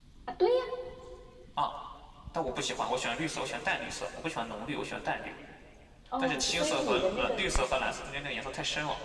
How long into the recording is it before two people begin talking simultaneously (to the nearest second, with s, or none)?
6 s